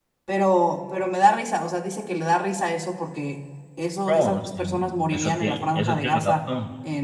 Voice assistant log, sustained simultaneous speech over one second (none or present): present